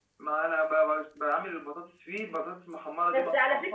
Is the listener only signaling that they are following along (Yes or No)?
No